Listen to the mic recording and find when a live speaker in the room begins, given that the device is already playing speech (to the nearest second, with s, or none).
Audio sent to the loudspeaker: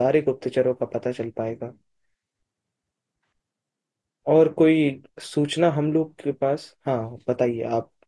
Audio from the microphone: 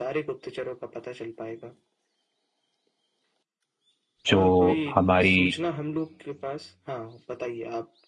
4 s